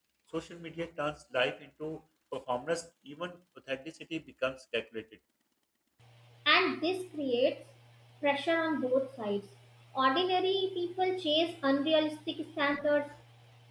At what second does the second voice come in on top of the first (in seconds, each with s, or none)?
none